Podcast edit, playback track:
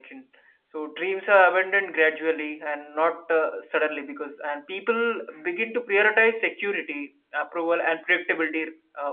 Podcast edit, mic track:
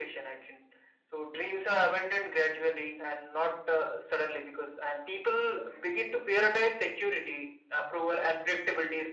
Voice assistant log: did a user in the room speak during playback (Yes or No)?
No